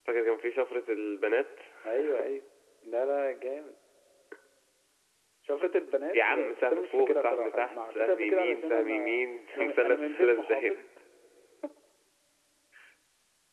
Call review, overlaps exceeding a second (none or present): present